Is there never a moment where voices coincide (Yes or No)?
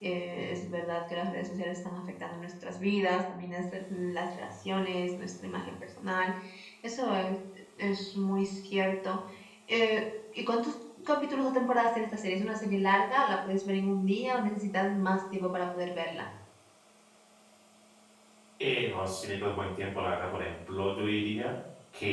Yes